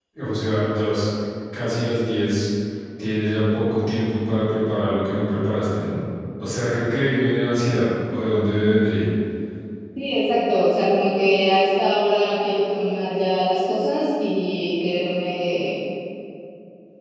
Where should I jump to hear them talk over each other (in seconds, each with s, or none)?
none